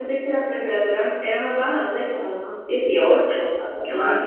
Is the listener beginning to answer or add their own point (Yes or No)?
Yes